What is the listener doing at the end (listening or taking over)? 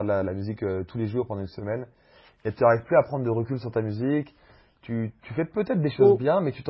listening